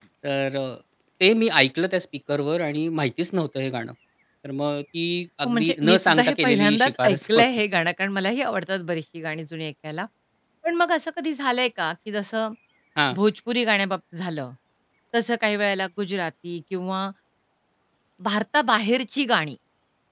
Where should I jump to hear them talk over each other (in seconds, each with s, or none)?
5.4 s